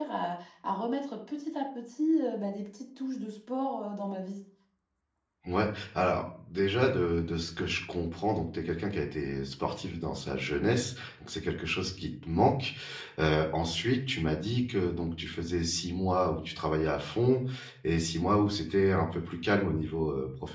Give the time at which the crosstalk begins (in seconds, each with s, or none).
none